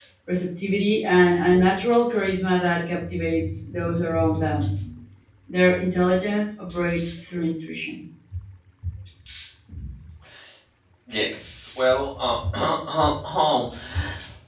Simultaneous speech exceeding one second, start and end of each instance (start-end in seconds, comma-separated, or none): none